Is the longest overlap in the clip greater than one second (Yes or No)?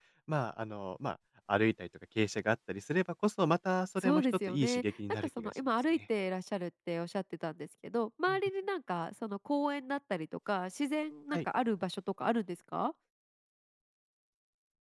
Yes